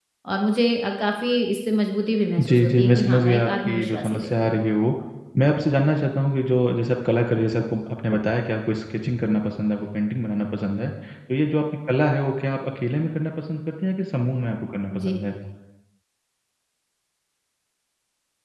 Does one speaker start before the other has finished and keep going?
Yes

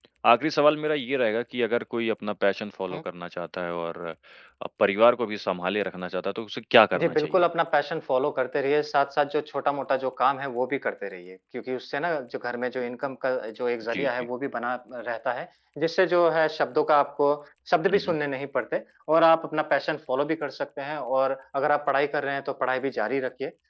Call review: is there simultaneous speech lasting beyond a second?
No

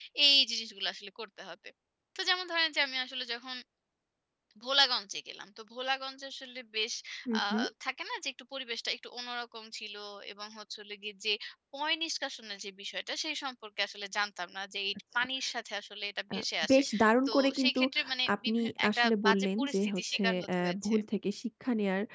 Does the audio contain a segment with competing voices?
Yes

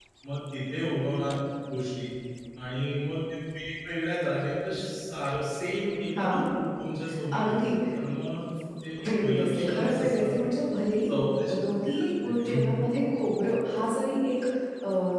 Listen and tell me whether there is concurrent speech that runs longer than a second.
Yes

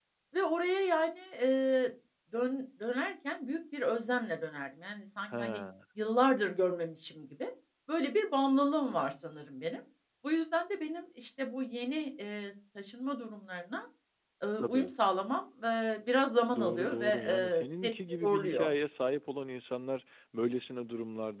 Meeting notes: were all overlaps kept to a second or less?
No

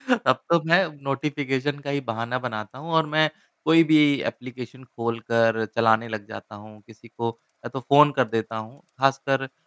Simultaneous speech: No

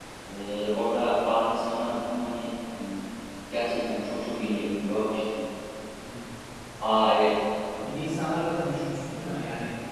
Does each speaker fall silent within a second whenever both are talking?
Yes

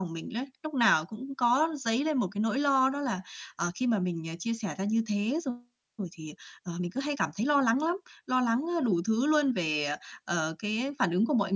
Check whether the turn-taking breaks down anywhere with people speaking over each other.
No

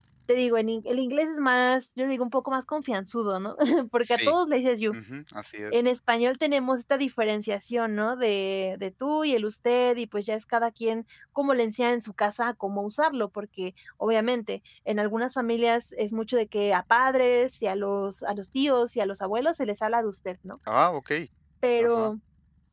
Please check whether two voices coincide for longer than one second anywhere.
No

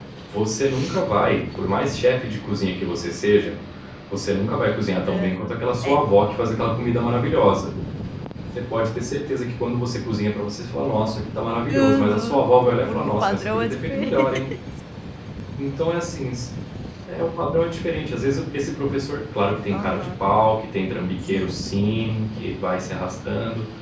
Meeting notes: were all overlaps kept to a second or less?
No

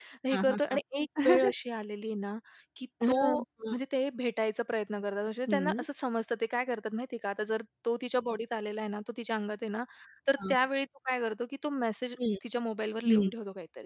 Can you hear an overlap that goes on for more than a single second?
No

